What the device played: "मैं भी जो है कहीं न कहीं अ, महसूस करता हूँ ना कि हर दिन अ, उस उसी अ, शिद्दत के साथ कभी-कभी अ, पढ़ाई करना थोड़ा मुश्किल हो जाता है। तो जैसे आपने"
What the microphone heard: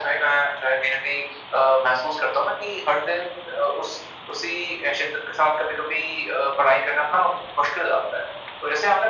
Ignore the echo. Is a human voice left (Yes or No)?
No